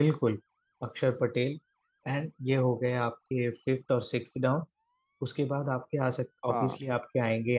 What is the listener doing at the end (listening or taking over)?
listening